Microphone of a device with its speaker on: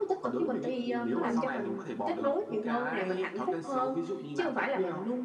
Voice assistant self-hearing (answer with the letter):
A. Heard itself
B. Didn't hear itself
A